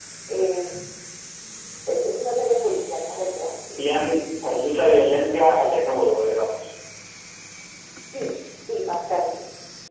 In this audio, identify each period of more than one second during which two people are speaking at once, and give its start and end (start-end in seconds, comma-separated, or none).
none